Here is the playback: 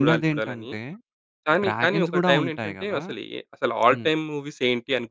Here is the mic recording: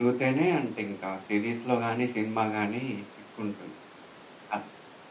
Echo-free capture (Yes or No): Yes